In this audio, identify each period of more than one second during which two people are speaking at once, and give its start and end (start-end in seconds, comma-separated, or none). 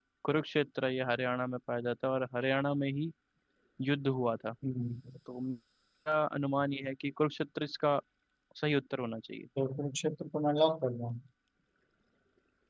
none